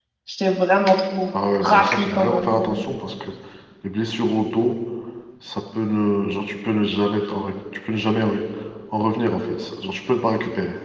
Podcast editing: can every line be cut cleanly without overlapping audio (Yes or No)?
No